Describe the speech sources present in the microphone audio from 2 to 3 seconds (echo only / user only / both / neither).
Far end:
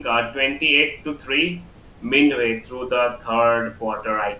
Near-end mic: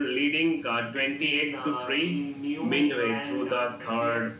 both